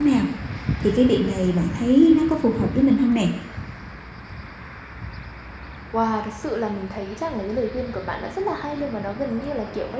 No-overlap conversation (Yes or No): Yes